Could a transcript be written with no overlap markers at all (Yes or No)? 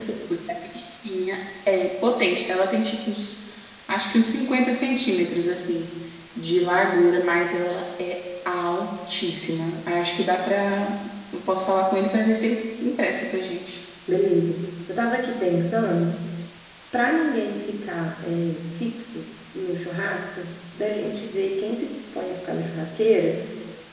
Yes